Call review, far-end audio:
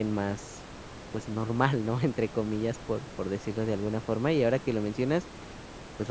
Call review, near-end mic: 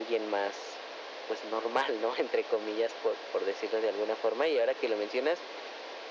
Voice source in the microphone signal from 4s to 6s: echo only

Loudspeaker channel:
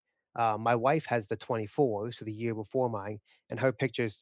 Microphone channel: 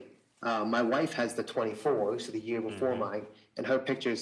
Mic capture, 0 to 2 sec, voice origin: echo only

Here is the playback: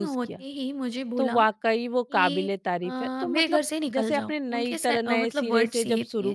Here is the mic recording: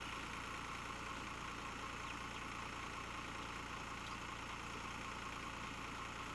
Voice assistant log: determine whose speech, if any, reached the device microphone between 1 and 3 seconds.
neither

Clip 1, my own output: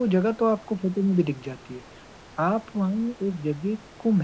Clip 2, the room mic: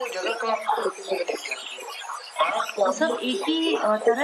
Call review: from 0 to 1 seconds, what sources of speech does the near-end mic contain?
echo only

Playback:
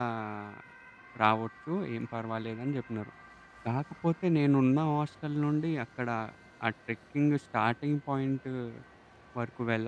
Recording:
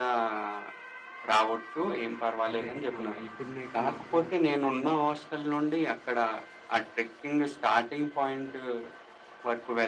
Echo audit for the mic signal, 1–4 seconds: both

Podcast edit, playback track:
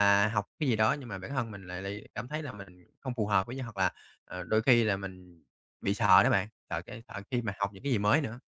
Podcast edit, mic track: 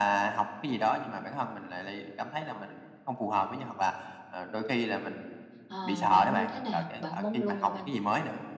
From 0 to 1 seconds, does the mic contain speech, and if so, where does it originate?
echo only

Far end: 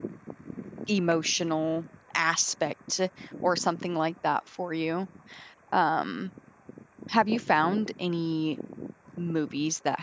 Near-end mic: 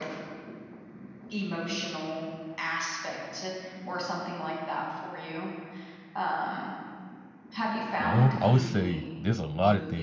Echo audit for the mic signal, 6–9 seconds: both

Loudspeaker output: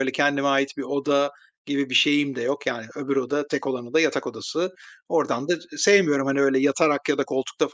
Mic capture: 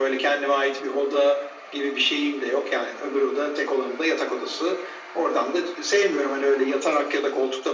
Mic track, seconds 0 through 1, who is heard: echo only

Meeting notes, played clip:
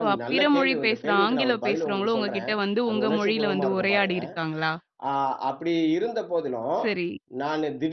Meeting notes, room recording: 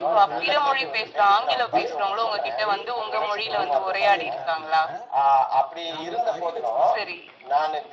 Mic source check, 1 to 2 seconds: both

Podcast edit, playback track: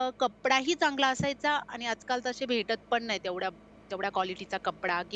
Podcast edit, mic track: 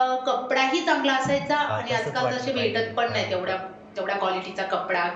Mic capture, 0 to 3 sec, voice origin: both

